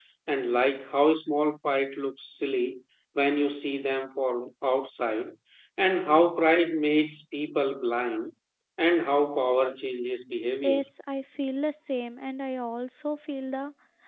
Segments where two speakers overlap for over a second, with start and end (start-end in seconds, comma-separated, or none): none